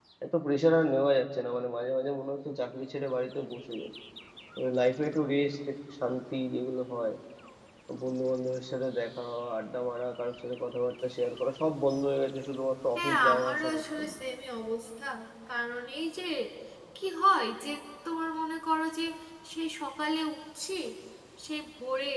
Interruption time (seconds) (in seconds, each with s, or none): 12.9 s